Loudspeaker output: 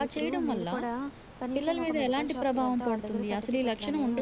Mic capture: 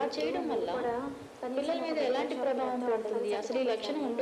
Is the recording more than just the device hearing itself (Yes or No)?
Yes